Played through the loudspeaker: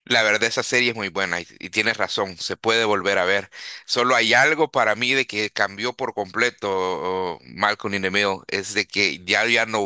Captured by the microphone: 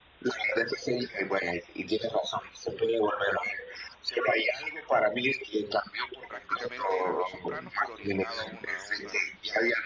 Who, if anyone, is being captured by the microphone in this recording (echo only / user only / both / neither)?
both